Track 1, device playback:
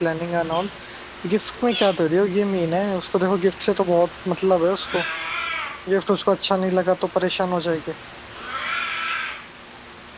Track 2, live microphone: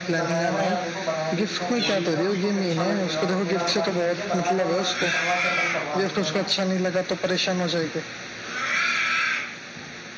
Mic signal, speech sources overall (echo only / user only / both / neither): both